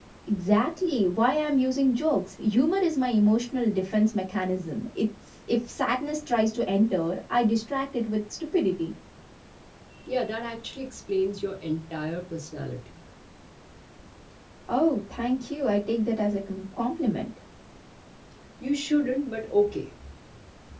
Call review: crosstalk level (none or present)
none